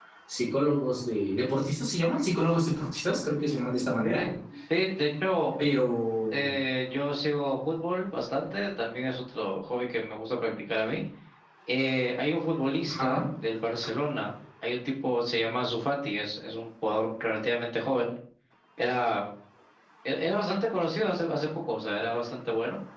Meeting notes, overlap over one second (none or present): none